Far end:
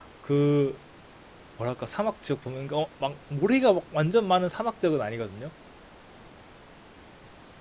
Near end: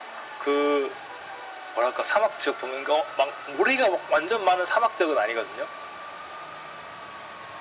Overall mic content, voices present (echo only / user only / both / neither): echo only